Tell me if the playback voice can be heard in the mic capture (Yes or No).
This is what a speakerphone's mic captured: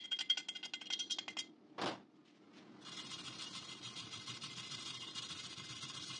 No